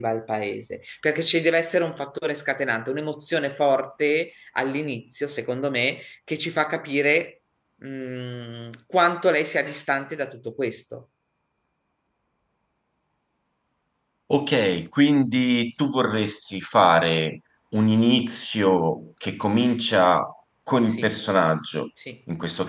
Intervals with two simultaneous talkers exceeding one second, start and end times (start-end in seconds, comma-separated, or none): none